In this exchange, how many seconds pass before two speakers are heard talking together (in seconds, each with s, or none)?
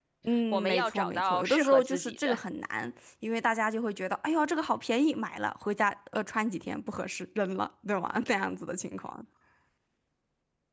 0.5 s